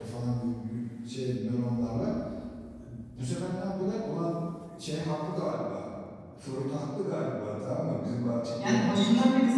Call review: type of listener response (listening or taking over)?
taking over